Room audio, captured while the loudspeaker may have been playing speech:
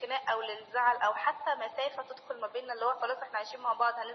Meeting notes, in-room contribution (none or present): none